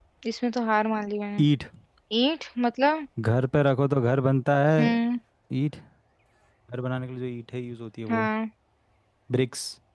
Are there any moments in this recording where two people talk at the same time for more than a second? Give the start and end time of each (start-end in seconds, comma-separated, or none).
none